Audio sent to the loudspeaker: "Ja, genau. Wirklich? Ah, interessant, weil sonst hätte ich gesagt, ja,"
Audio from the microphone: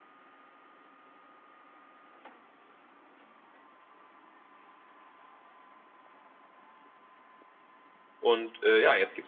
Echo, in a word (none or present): none